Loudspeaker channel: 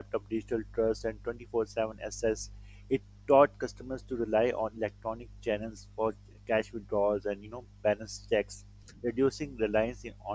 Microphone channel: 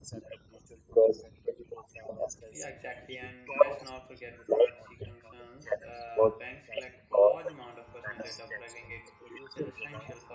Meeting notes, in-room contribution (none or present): present